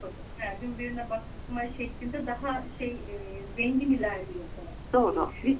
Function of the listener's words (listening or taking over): taking over